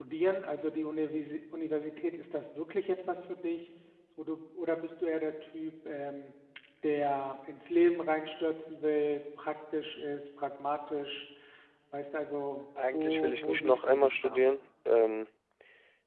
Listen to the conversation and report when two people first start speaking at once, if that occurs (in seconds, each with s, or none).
12.8 s